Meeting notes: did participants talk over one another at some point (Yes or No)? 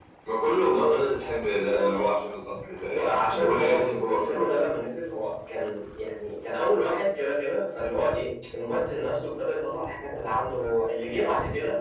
Yes